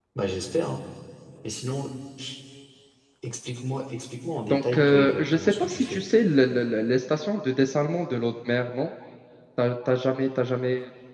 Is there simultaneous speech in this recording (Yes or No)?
Yes